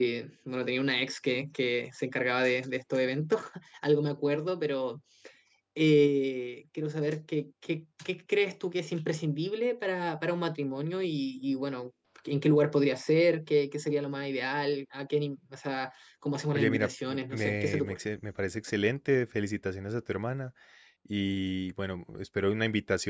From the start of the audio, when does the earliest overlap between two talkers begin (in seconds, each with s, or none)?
16.5 s